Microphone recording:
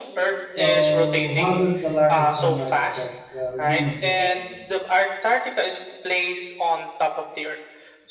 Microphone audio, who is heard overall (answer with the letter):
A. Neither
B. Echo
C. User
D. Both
D